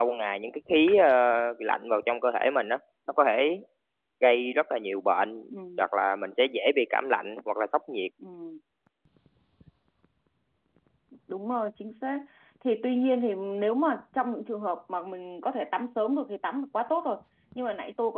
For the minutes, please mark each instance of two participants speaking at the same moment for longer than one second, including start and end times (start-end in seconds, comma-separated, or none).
none